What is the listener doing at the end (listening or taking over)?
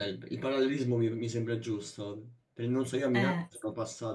listening